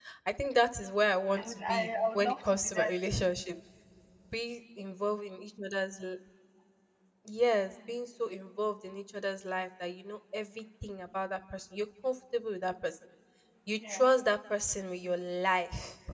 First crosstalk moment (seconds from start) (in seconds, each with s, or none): 1.4 s